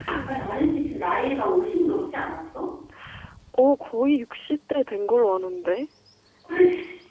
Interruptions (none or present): none